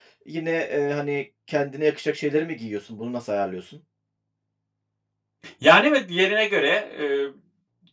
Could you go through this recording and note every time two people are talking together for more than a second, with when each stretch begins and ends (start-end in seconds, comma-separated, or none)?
none